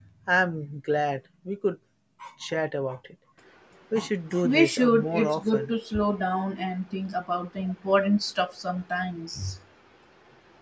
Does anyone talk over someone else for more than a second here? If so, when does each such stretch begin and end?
4.4-5.7

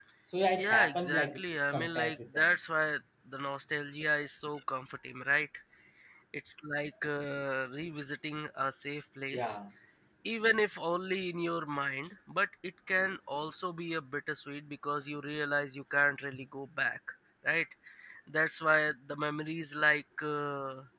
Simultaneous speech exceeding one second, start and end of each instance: 0.6-2.5

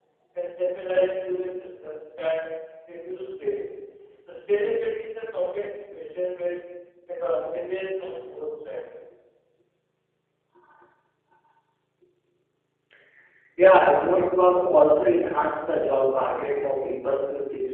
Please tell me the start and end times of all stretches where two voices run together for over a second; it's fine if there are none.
none

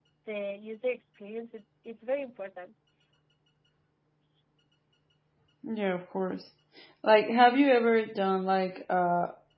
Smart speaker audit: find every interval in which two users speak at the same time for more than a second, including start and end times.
none

